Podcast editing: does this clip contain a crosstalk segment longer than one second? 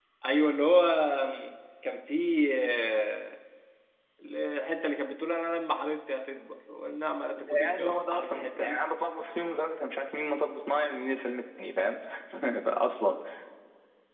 Yes, from 7.4 s

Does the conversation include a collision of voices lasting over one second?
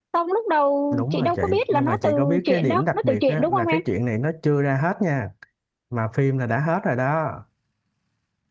Yes, from 0.9 s

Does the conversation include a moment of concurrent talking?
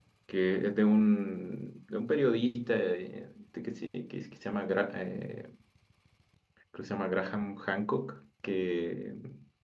No

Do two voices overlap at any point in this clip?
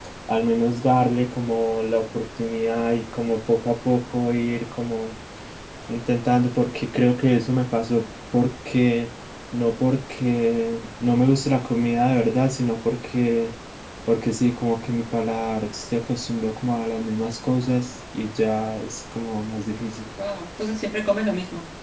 No

